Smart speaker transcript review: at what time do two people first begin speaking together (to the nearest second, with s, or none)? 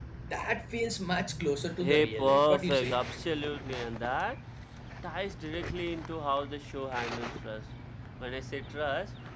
2 s